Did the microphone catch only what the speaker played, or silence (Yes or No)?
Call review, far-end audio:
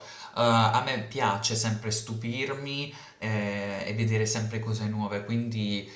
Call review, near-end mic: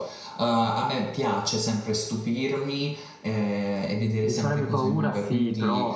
No